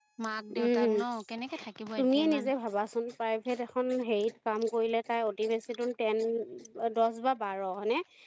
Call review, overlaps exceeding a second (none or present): none